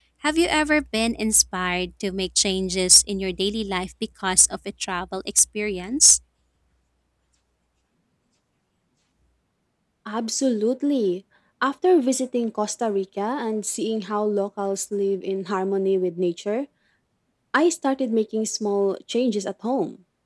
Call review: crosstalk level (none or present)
none